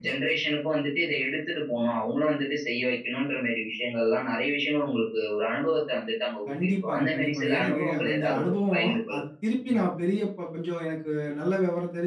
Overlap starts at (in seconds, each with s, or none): 6.5 s